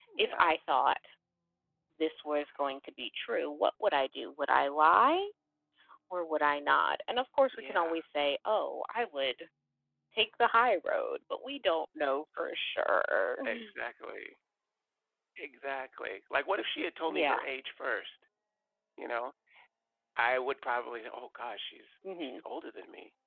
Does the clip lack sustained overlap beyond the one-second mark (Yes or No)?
Yes